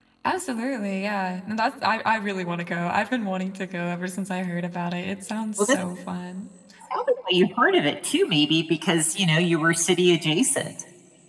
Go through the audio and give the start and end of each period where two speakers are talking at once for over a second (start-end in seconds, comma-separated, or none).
none